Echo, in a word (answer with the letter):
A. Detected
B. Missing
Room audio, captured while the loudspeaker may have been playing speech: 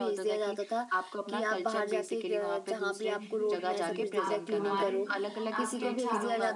A